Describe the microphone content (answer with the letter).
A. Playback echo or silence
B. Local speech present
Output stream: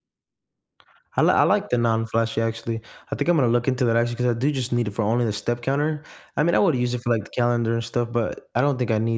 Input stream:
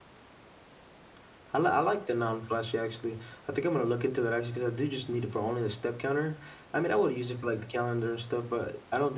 A